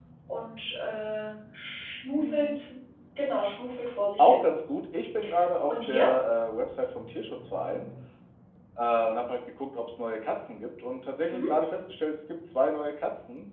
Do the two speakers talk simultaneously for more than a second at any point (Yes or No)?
No